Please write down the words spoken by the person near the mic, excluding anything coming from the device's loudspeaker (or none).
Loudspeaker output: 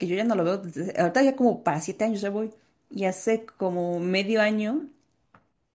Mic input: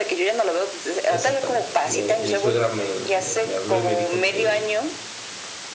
Exactamente. Me, mi suegra me, me, me habló y me dijo que,